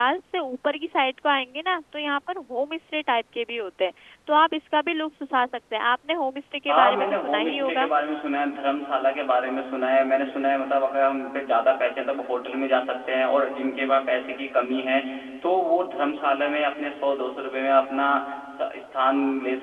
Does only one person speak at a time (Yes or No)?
No